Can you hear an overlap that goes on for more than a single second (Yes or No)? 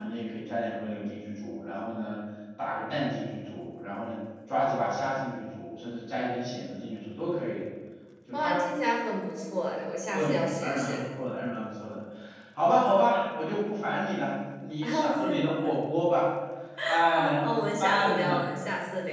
Yes